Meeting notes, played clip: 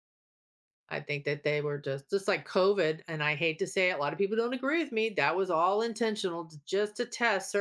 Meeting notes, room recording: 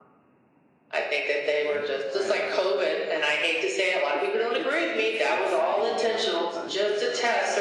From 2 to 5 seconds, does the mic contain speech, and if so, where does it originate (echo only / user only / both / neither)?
both